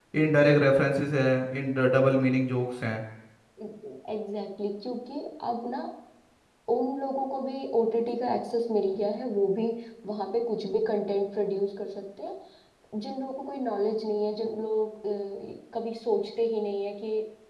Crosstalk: none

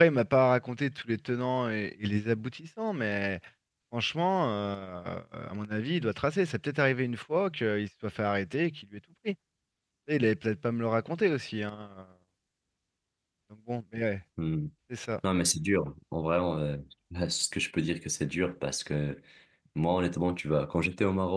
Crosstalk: none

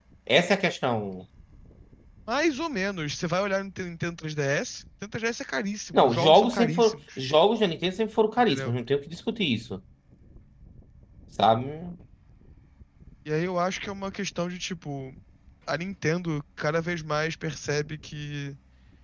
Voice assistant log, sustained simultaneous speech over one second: present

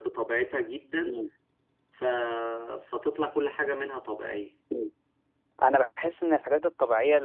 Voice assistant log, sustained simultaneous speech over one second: none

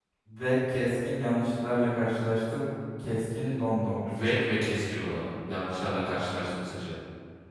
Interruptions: none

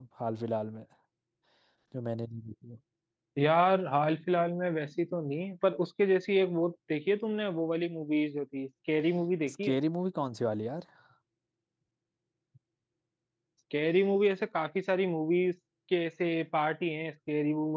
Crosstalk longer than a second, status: none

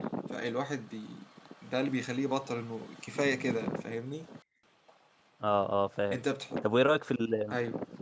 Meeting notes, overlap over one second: none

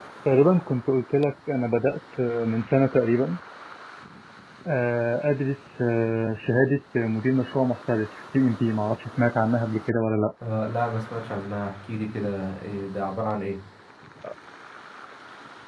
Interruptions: none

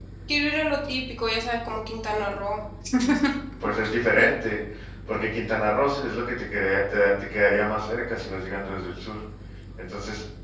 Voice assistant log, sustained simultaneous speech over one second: none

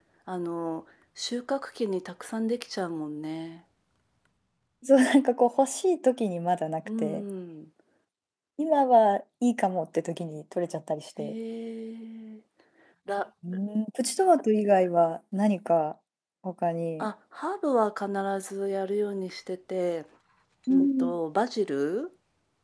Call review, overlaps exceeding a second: none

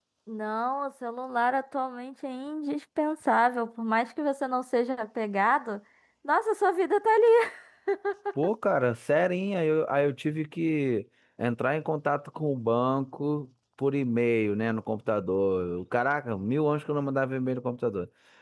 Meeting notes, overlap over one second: none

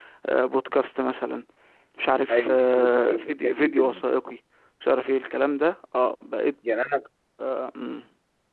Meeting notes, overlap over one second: present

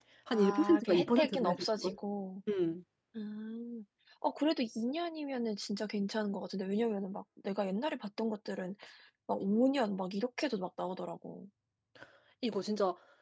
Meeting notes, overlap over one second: present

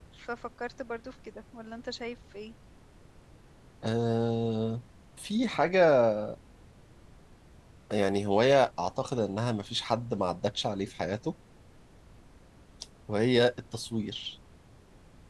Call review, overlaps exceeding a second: none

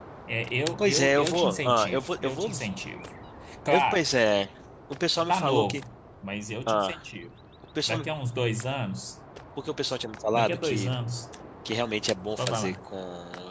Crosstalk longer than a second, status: present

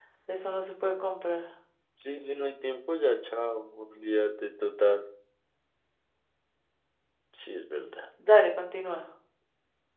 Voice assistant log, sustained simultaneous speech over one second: none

